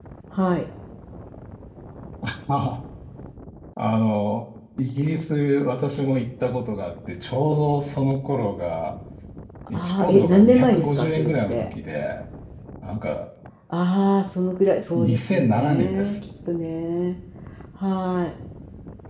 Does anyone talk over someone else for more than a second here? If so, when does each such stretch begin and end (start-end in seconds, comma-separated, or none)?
9.7-11.7, 15.0-16.2